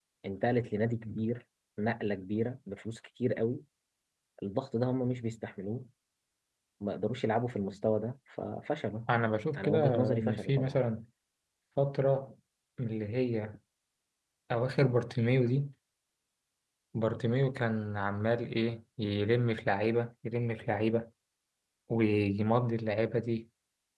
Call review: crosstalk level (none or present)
present